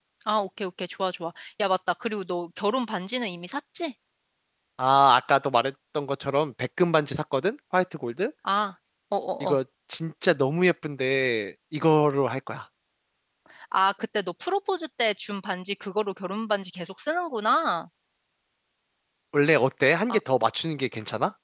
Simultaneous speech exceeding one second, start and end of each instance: none

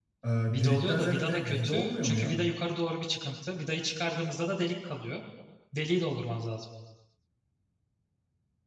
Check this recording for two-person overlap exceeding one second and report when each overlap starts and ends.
0.5-2.4

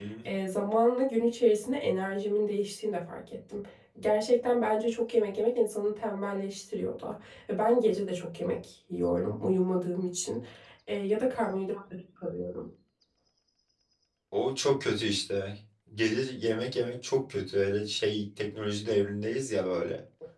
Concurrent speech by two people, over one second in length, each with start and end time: none

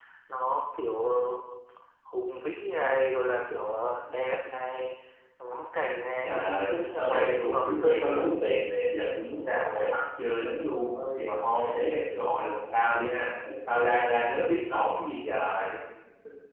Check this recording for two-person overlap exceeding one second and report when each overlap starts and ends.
6.2-8.2

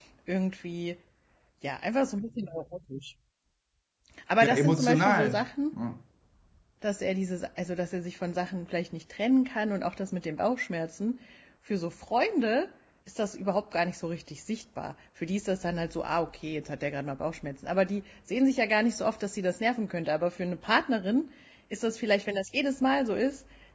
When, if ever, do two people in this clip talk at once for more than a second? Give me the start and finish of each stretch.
4.4-5.7

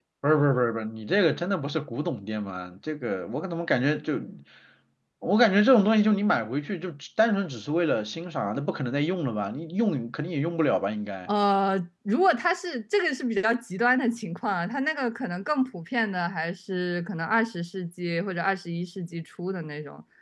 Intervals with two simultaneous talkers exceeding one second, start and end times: none

